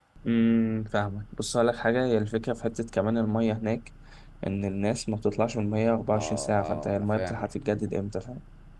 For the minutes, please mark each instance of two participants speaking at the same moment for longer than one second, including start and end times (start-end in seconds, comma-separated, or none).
6.1-7.5